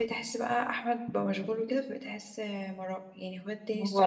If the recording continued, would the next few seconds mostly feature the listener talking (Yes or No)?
No